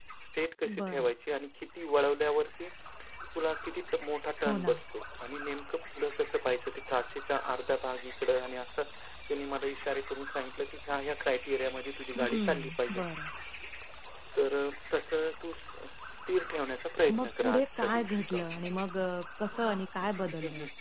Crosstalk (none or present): present